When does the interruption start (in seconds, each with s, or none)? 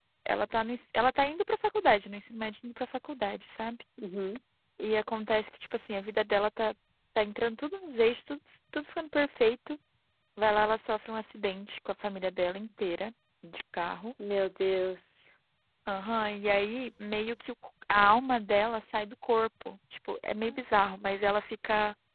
none